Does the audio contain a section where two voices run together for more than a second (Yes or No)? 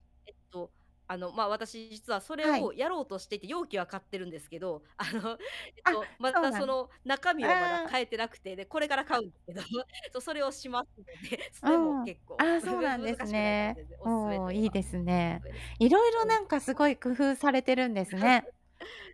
Yes